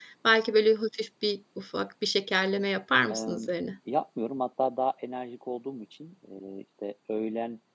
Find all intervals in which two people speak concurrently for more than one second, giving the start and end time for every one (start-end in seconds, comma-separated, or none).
none